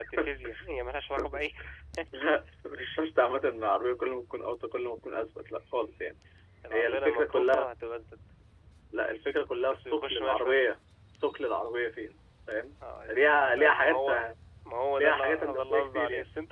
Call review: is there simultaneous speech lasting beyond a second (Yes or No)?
Yes